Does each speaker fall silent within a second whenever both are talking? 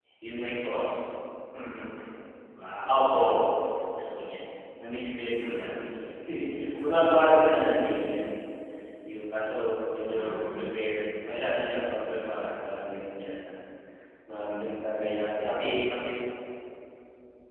Yes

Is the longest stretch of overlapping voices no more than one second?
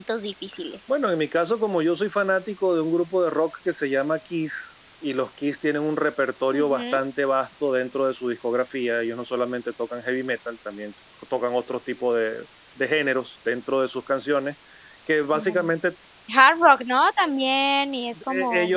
Yes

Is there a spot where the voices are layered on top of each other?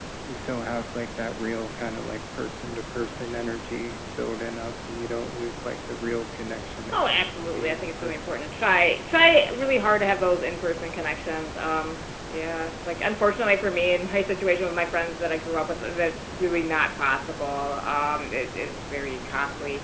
Yes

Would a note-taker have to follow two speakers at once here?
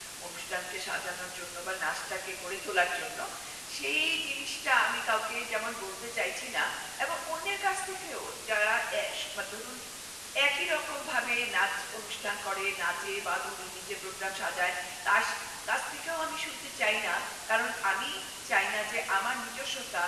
No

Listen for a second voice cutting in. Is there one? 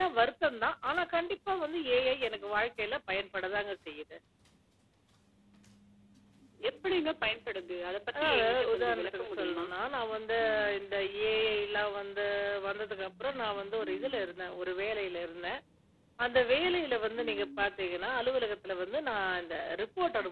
Yes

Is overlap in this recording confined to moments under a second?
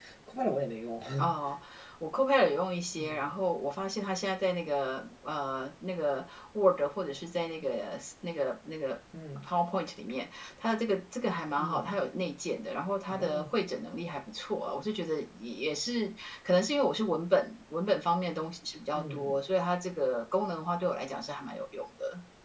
Yes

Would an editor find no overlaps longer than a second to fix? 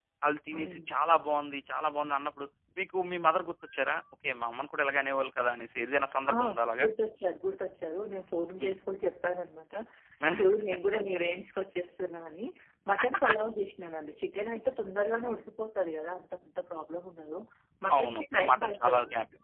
No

